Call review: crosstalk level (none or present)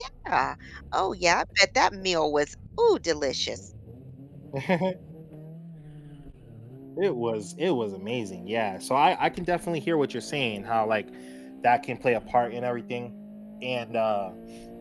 none